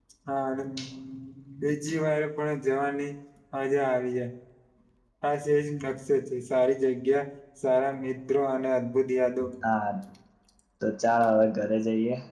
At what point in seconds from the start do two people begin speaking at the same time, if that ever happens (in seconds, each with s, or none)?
none